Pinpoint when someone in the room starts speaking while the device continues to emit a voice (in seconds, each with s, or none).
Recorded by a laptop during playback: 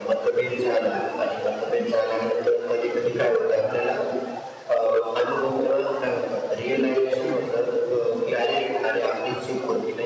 none